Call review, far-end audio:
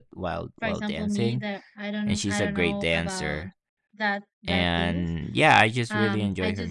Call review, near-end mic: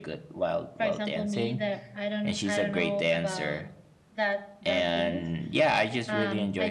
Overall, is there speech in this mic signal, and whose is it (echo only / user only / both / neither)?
echo only